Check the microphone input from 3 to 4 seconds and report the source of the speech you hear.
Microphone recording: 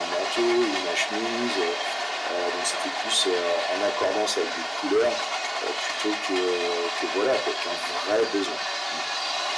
echo only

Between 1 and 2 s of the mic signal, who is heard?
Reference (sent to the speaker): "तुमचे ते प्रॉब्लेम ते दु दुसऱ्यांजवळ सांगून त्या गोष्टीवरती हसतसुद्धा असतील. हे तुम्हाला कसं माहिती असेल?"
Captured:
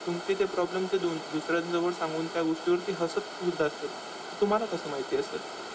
echo only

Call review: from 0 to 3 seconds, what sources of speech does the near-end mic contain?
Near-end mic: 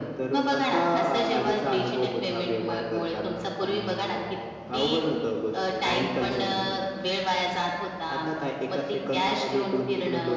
echo only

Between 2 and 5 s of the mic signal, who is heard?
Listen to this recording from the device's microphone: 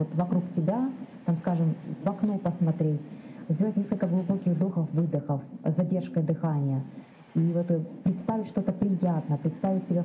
echo only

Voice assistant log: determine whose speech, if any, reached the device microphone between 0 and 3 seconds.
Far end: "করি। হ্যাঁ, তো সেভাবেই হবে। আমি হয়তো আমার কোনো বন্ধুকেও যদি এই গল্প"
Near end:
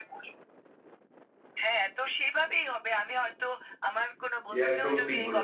echo only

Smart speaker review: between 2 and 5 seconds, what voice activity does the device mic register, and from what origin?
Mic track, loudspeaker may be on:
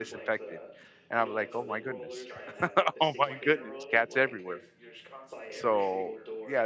both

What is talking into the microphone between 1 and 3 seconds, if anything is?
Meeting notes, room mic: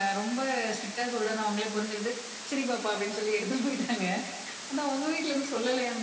echo only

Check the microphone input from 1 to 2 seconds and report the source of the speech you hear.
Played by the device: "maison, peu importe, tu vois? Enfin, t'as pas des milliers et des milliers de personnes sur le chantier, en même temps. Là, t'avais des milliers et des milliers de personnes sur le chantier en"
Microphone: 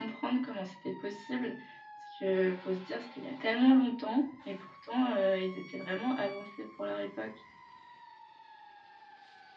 user only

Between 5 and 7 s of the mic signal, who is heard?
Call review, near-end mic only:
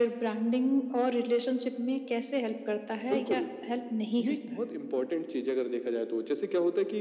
echo only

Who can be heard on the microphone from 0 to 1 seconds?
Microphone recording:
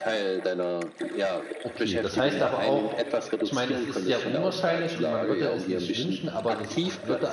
echo only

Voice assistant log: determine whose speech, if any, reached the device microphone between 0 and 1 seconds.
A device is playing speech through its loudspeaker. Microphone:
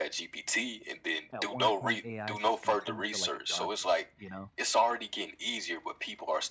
echo only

